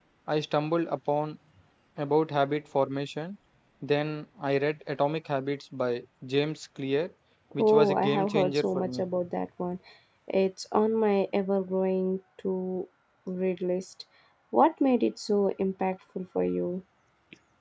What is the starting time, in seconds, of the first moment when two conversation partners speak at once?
8 s

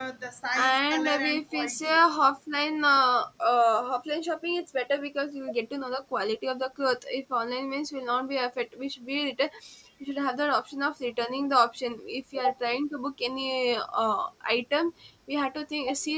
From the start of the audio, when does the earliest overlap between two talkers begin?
1 s

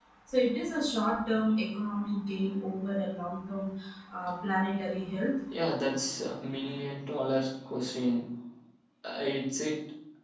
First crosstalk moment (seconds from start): none

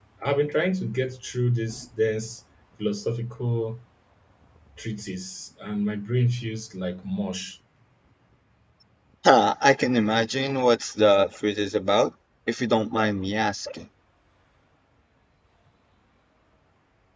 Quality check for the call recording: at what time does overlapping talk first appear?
none

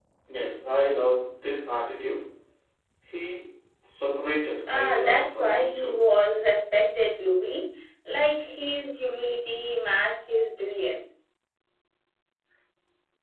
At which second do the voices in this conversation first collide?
5 s

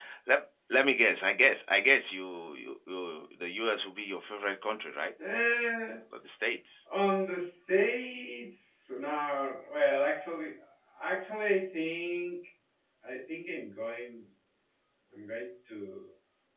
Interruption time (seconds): none

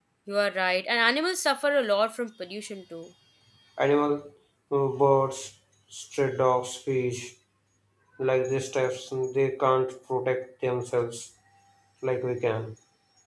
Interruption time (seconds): none

